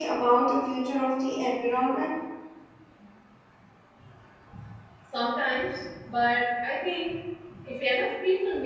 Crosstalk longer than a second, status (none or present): none